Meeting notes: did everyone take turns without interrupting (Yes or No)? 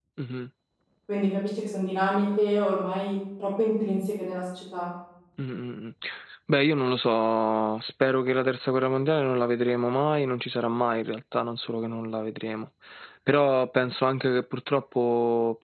Yes